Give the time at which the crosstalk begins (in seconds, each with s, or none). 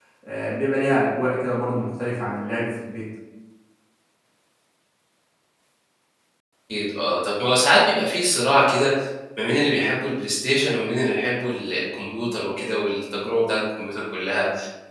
none